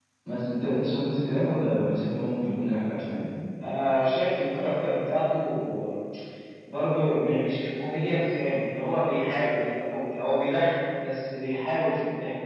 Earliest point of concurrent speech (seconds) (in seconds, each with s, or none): none